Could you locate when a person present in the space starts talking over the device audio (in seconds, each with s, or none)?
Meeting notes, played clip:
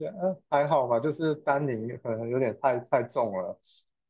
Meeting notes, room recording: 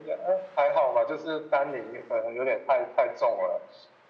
none